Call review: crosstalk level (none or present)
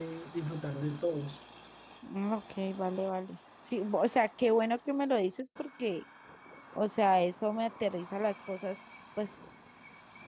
none